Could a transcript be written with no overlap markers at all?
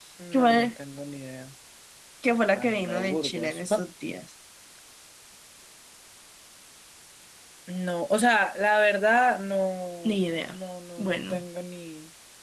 No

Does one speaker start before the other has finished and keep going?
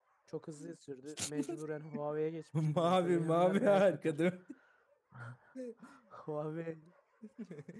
Yes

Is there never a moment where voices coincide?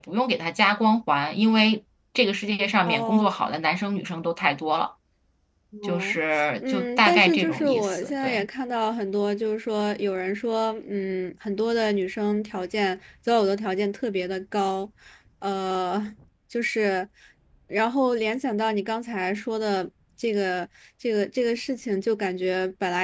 No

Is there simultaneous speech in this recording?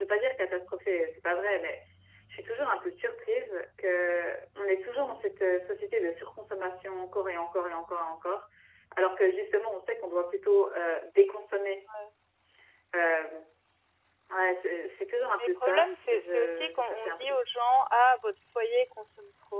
Yes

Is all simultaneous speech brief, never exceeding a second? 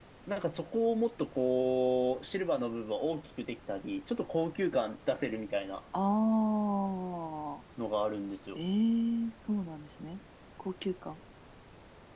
Yes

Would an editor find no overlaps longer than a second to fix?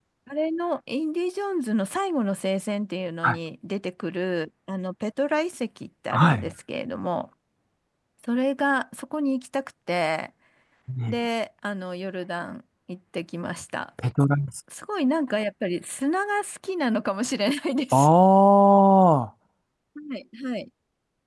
Yes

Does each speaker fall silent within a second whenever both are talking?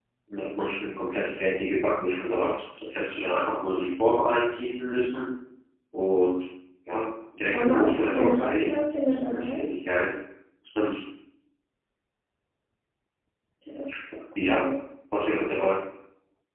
No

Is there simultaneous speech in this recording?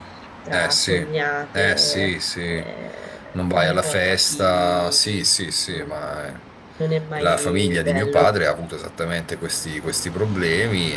Yes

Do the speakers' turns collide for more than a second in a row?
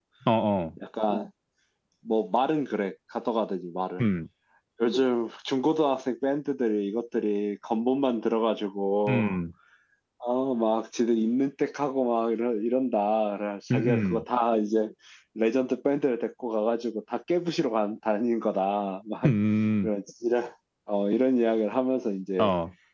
No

